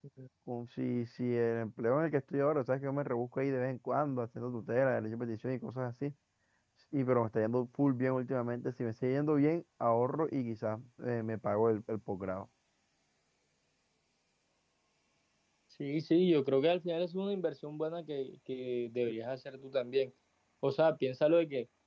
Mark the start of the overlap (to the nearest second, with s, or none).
none